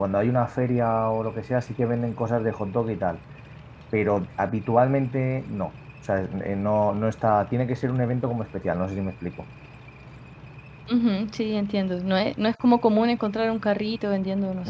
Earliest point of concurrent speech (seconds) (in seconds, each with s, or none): none